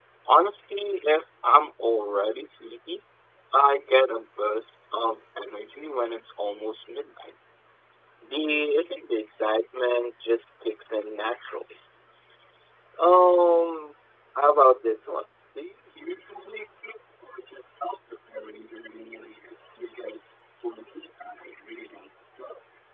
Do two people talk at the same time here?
No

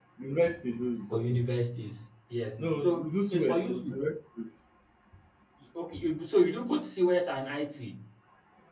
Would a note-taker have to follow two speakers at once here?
Yes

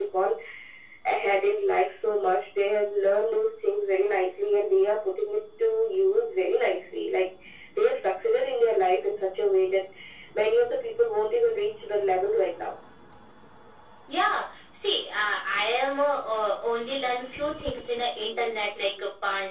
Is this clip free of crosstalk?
Yes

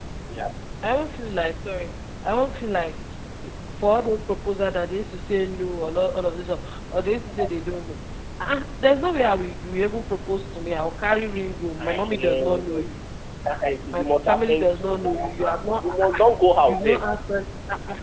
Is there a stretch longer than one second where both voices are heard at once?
Yes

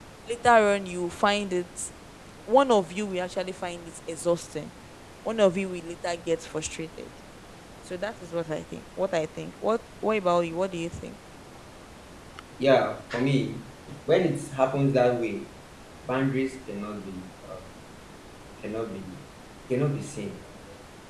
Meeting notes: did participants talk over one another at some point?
No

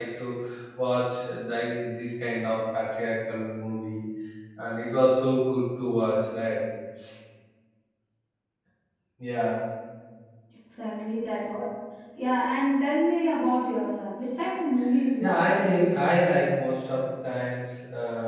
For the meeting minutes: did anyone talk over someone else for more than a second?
No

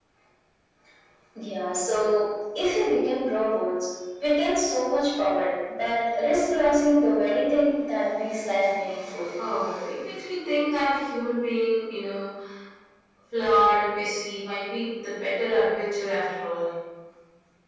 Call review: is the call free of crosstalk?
Yes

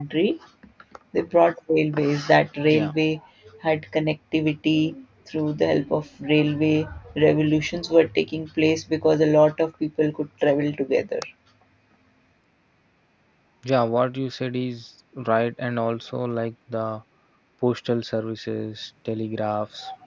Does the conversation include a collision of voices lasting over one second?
No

